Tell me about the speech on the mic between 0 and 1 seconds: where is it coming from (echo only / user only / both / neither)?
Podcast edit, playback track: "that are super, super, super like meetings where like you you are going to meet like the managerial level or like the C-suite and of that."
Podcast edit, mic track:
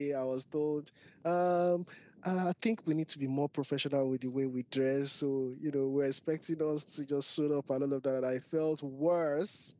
user only